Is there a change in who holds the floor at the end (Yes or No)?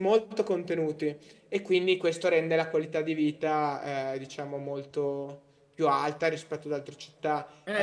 Yes